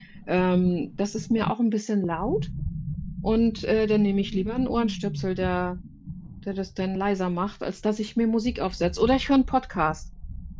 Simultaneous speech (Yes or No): No